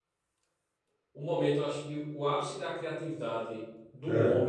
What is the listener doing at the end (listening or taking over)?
listening